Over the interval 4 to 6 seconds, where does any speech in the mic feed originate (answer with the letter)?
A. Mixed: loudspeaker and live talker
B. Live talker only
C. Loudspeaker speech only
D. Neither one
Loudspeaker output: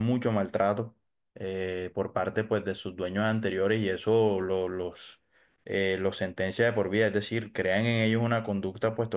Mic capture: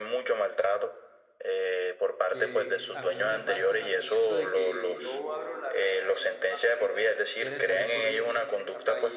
A